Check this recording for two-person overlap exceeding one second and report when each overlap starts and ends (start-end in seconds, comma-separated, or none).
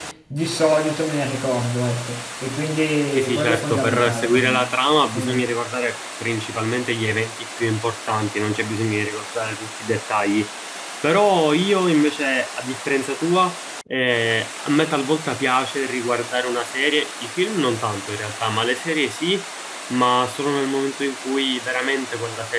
3.1-4.7